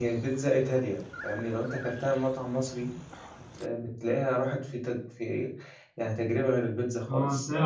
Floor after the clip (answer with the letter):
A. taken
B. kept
A